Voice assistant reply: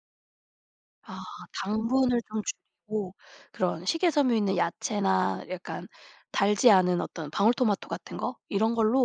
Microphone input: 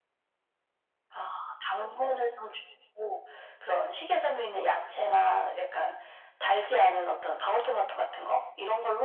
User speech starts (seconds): none

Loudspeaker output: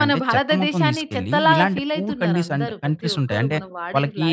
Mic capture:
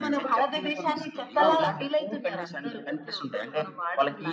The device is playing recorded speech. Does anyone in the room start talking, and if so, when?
1.4 s

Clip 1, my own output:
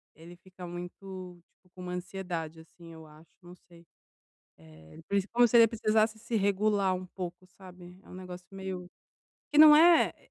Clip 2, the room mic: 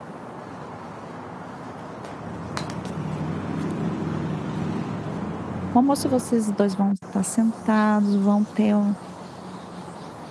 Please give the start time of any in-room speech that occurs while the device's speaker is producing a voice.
5.7 s

